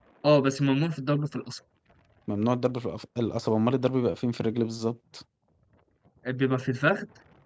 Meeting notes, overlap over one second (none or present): none